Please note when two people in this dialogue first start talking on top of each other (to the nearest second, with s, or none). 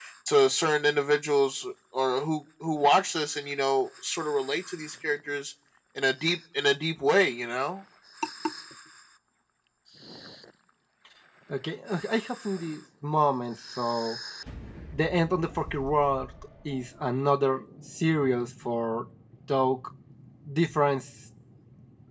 none